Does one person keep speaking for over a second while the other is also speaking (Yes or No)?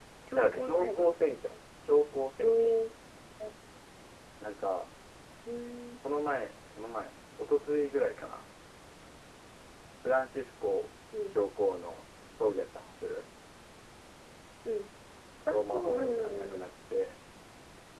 Yes